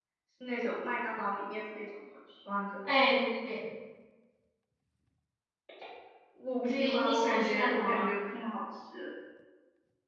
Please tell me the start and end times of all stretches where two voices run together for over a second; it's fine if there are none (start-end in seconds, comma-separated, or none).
6.7-8.1